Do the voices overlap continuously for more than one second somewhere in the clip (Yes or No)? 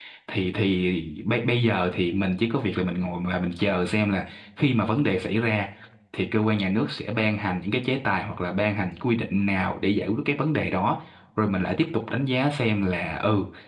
No